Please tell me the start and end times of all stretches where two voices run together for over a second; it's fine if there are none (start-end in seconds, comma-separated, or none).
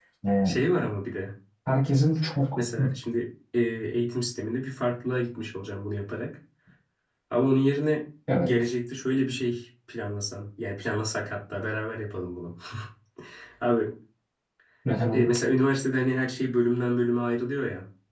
none